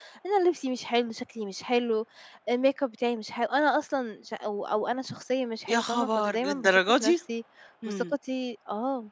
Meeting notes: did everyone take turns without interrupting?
No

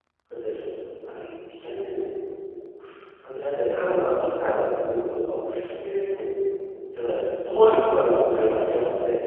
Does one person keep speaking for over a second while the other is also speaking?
No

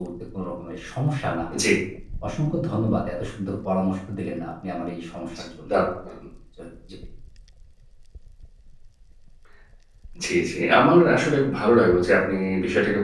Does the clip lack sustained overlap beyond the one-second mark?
Yes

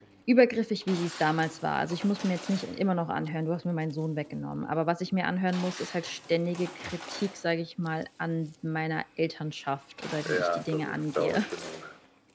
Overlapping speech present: Yes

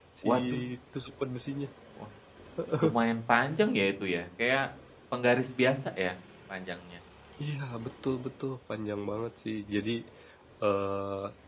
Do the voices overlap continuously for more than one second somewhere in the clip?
No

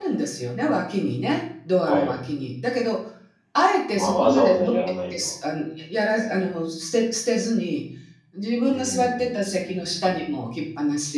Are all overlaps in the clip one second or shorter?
No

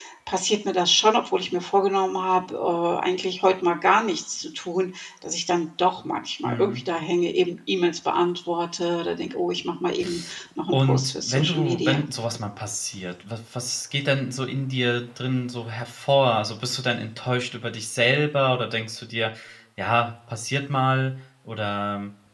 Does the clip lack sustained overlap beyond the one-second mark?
No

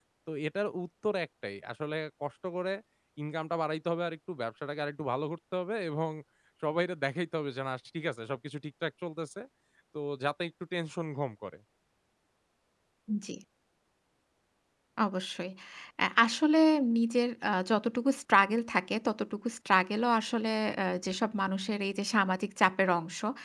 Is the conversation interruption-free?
Yes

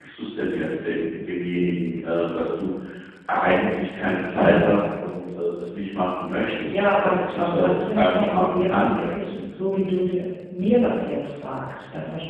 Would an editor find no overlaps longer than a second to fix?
No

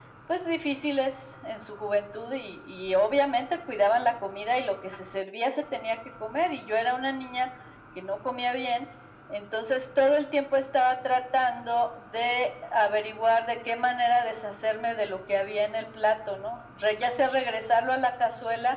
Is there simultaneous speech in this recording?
No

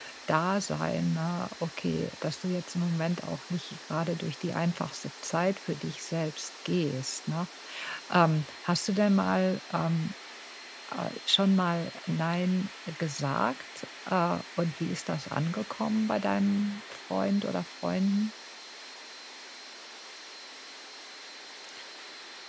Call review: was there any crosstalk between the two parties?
No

